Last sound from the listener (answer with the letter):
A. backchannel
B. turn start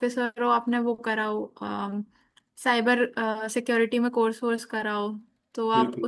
A